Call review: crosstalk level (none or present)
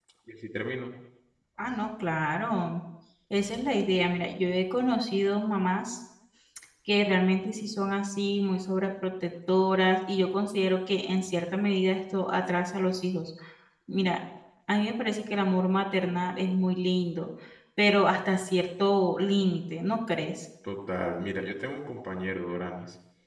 none